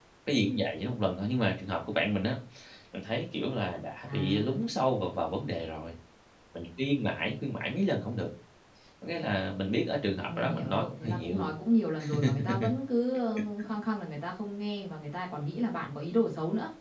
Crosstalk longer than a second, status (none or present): present